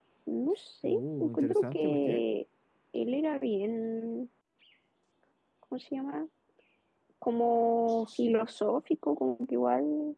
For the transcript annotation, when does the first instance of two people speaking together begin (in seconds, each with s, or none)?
0.8 s